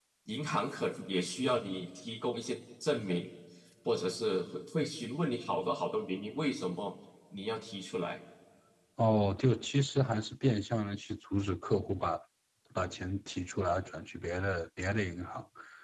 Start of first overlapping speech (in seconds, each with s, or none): none